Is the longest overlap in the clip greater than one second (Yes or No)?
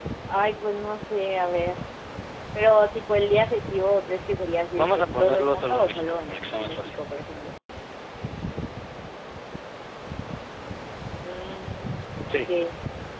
Yes